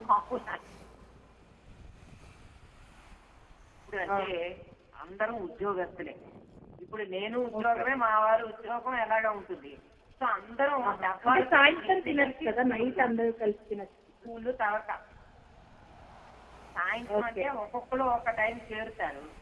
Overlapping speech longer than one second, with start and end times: 10.9-13.0

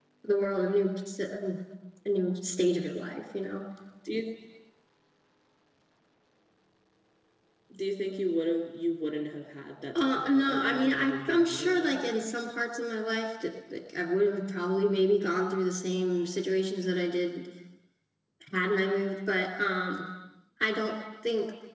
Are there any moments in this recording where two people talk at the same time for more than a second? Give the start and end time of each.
10.0-12.1

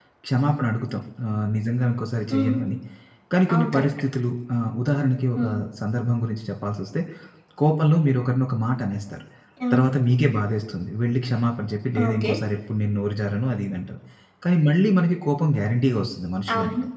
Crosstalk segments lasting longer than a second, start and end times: none

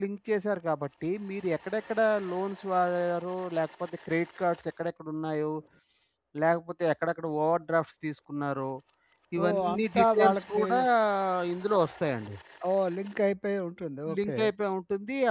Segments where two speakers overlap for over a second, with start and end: 9.4-10.7

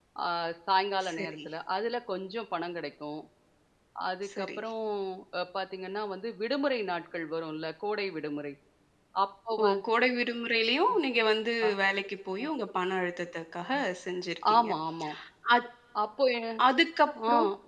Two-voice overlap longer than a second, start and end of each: none

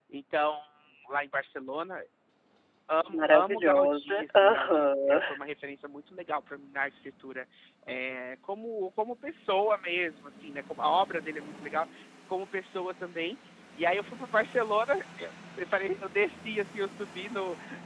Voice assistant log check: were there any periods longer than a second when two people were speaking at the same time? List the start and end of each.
3.2-5.2

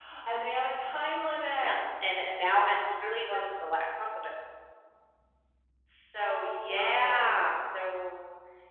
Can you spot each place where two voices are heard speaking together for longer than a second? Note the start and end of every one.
6.2-7.5

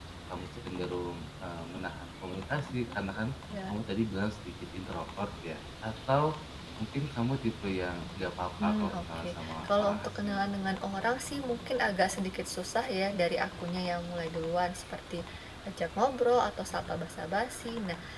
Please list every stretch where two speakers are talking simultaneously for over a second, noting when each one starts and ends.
8.6-10.4

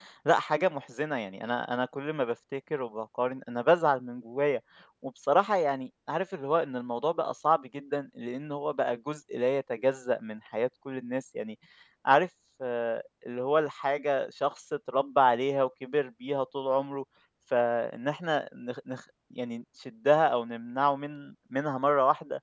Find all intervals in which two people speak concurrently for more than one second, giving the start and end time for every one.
none

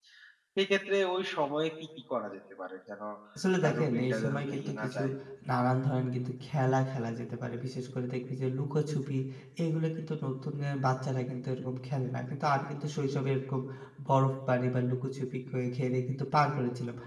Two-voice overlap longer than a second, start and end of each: 3.6-5.0

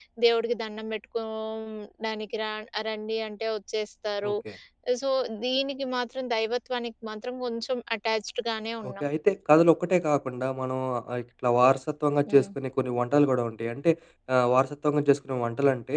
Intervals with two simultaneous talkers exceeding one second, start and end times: none

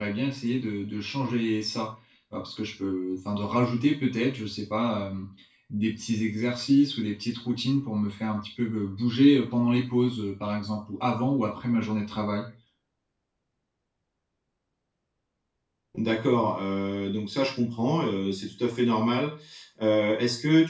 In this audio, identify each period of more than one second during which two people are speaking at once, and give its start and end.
none

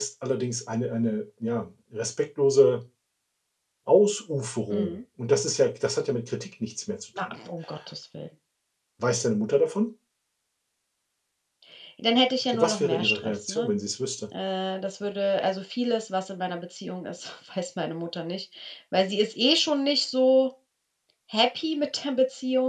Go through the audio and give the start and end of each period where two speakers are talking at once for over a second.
12.5-13.7

